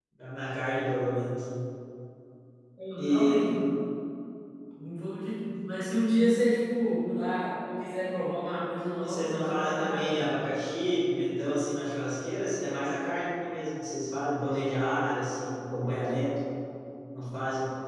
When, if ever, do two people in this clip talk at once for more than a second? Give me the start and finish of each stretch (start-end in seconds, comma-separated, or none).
9.0-10.4